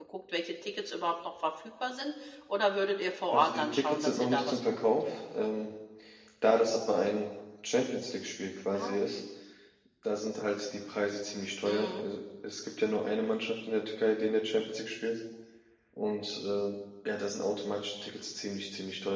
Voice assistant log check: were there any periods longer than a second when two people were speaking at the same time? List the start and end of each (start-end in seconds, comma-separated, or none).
3.3-5.0